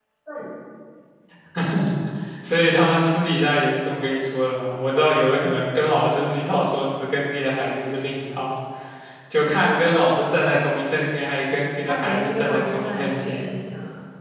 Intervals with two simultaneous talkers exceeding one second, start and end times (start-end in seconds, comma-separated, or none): 11.9-13.4